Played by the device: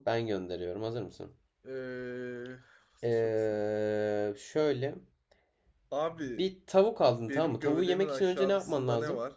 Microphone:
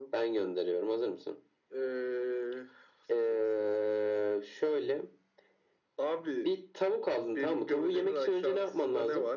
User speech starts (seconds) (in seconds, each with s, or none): none